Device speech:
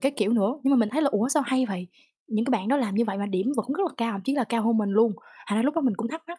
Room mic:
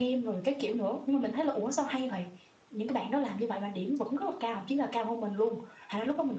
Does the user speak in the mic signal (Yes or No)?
No